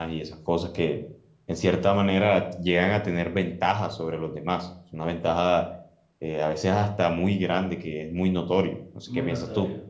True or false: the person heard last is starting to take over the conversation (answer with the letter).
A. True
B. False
A